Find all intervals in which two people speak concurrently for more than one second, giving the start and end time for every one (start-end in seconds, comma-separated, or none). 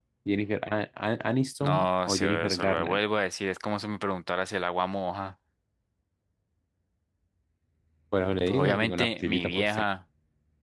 1.6-3.0, 8.5-9.8